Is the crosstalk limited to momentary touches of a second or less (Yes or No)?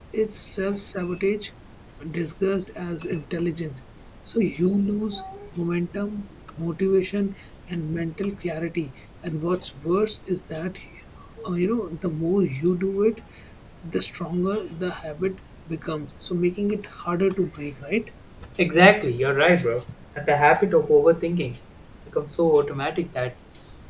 Yes